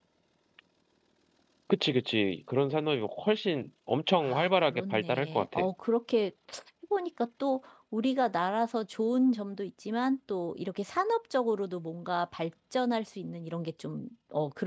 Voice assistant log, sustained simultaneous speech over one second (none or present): present